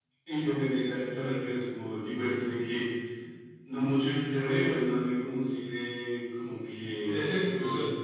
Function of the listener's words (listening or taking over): taking over